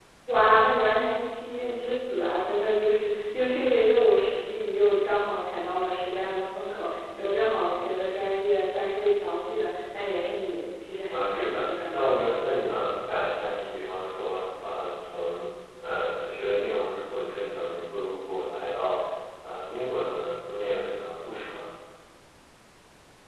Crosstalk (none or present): present